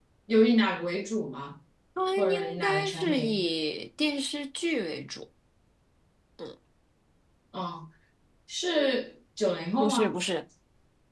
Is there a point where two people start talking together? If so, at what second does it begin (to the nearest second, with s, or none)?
2 s